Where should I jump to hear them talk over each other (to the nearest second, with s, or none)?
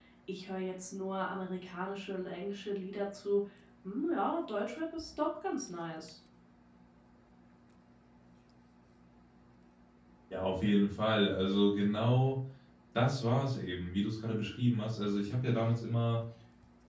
none